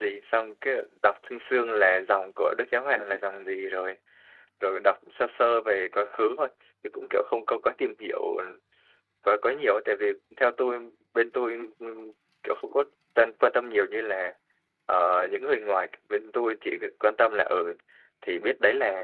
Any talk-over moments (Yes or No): No